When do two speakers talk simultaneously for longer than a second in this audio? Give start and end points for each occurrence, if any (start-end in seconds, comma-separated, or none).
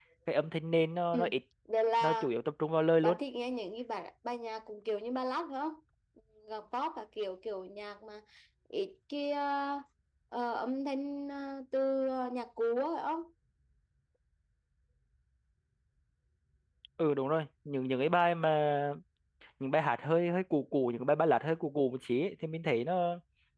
none